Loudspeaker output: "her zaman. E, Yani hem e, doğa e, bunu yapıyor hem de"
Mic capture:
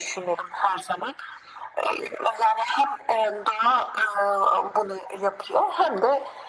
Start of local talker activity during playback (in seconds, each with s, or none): none